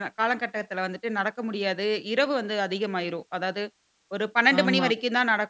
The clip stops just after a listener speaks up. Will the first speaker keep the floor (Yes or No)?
Yes